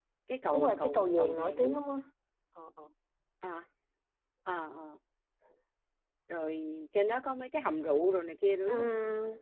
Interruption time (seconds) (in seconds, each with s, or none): 0.5 s